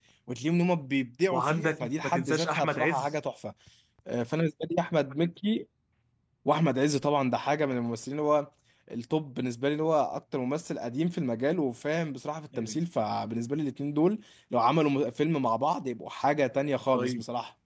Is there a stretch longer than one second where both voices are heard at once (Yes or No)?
Yes